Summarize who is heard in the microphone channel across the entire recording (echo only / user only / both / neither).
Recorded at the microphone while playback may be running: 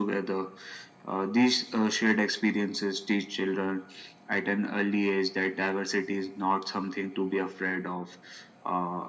echo only